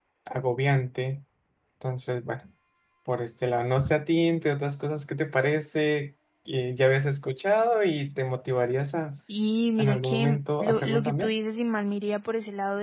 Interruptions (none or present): present